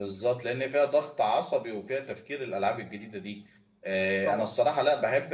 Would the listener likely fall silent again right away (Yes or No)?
Yes